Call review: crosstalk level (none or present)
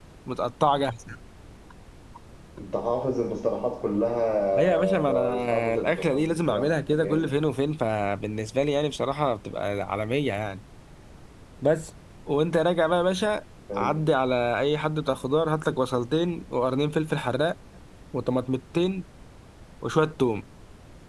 present